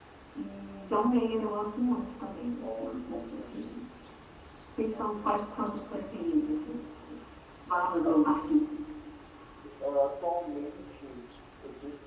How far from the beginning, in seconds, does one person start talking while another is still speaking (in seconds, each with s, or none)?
2.6 s